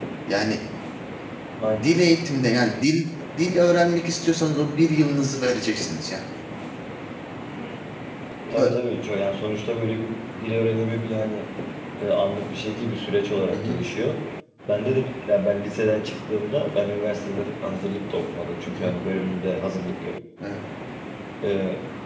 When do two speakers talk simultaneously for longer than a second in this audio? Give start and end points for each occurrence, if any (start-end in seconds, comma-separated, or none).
none